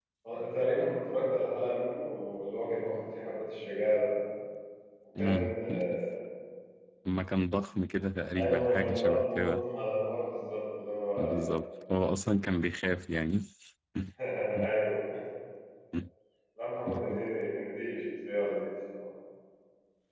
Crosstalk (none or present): present